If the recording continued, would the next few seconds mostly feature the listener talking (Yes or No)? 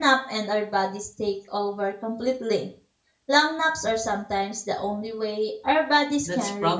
Yes